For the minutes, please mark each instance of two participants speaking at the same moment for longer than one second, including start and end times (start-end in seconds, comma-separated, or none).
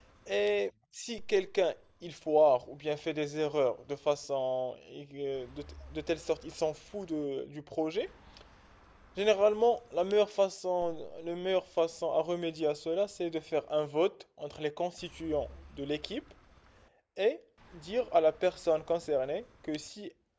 none